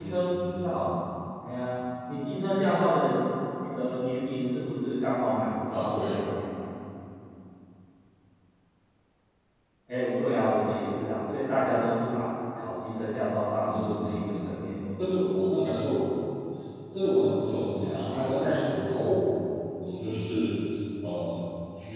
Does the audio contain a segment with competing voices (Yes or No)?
Yes